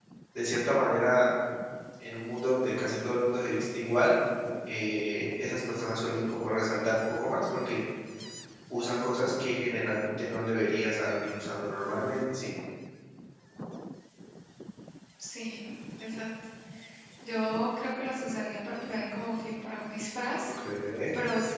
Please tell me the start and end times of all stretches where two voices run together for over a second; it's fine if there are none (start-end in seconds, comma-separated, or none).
none